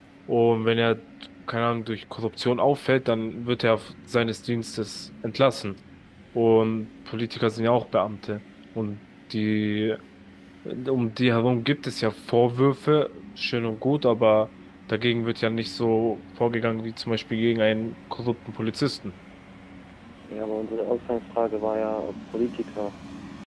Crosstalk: none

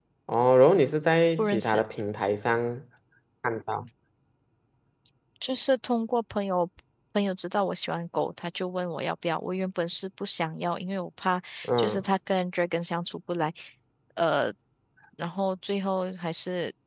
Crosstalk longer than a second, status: none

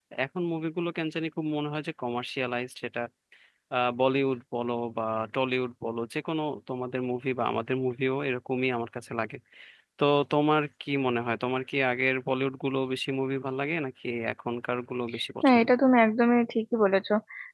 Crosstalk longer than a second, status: none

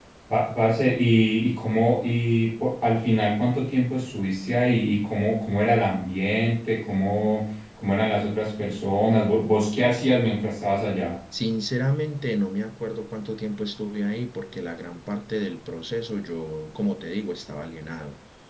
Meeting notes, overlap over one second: none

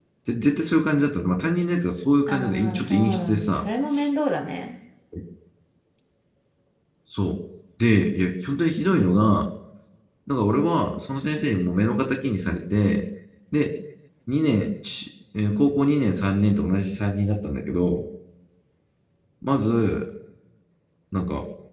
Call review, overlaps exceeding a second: present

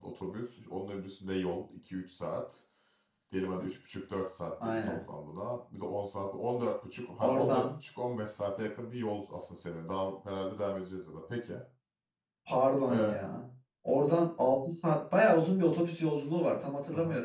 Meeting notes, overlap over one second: none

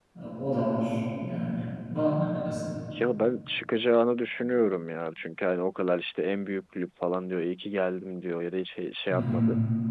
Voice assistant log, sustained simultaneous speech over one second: none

